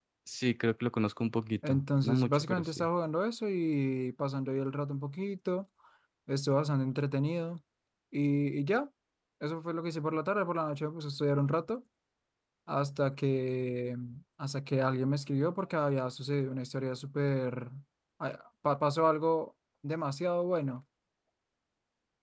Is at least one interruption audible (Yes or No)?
Yes